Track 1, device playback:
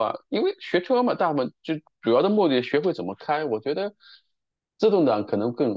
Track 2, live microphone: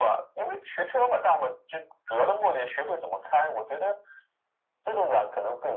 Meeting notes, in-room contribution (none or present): none